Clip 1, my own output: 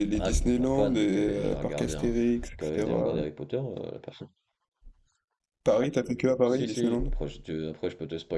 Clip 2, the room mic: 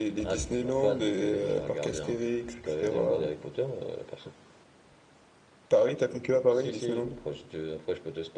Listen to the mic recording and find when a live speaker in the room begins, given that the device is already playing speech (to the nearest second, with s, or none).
none